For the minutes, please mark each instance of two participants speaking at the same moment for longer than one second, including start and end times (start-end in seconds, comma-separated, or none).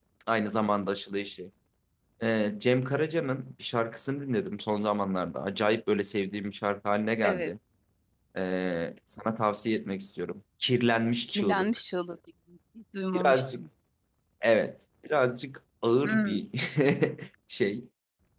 none